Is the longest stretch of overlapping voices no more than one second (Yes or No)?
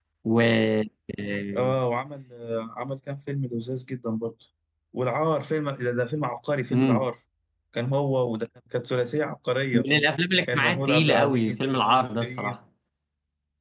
No